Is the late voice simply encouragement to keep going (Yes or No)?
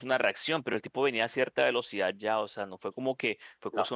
Yes